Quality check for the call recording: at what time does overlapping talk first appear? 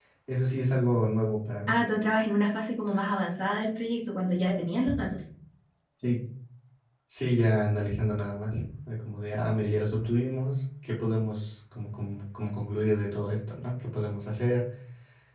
none

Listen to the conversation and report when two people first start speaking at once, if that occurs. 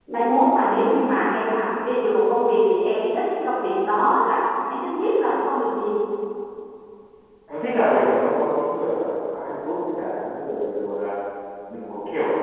none

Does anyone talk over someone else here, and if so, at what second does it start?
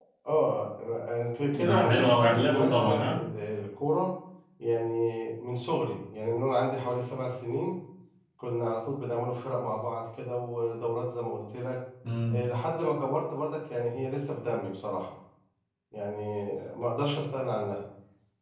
1.6 s

